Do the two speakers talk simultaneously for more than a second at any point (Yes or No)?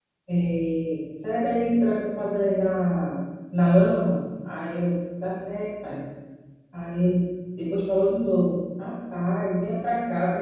No